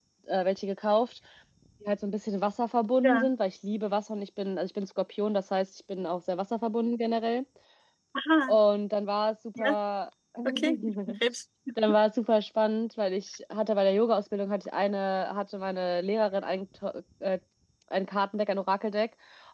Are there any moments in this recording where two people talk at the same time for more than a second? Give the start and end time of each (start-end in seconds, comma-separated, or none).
none